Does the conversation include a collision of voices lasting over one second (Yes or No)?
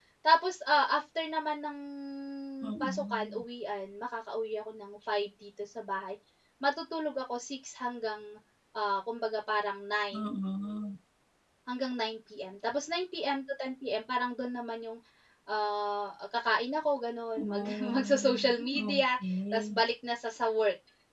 Yes